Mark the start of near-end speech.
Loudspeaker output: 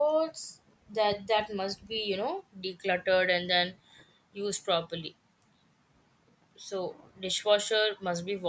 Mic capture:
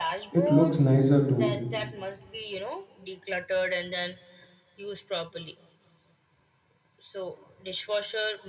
0.3 s

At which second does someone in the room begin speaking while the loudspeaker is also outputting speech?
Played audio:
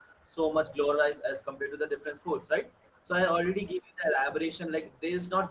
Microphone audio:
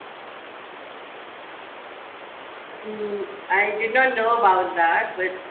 2.8 s

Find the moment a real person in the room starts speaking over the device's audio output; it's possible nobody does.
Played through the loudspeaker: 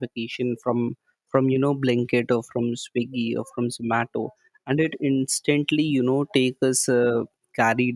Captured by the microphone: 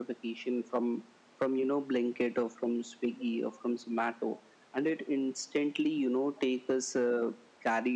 none

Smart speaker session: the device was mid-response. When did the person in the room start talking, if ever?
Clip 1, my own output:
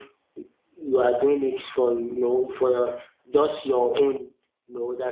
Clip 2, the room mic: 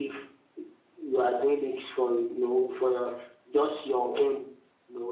none

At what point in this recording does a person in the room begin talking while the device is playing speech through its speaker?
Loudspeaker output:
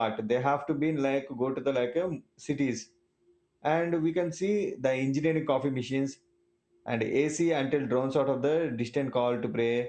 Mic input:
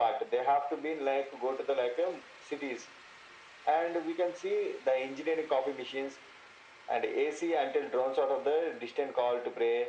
none

